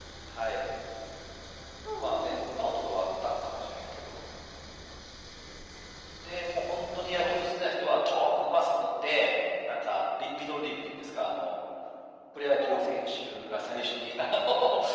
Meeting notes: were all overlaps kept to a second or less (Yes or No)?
Yes